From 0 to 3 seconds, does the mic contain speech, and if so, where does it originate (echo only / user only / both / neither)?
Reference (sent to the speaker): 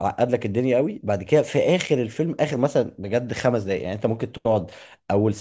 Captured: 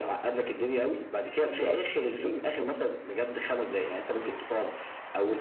both